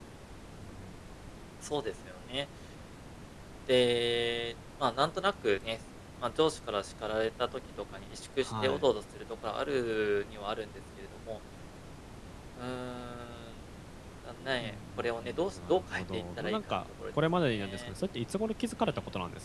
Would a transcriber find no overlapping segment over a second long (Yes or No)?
No